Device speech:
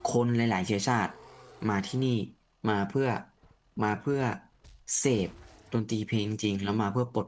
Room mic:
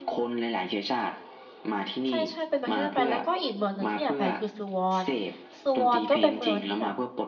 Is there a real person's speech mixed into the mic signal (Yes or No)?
Yes